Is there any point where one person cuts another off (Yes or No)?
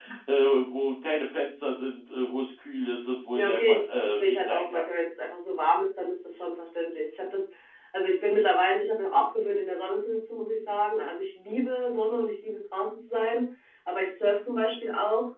Yes